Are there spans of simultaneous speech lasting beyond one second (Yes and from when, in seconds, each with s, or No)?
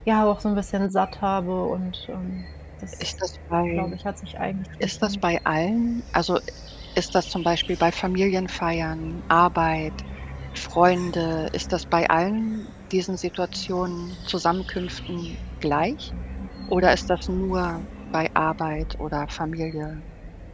No